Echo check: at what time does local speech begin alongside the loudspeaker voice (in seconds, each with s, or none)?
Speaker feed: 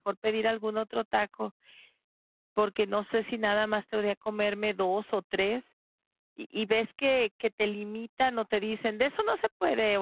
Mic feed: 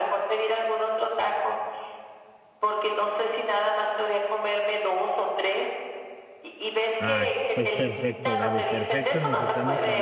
7.0 s